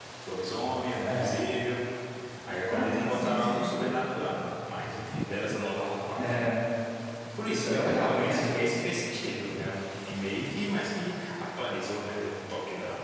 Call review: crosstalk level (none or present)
present